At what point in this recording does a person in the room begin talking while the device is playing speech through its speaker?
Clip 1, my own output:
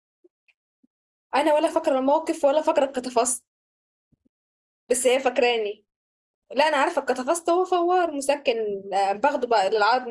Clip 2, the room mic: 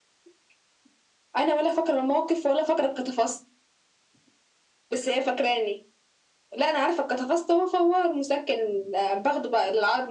none

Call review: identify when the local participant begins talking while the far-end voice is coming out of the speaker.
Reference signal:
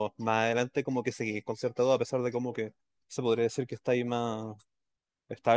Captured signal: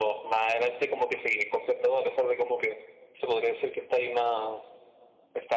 none

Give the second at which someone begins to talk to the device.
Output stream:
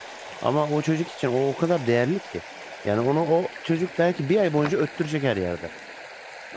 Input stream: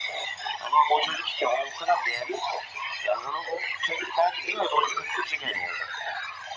none

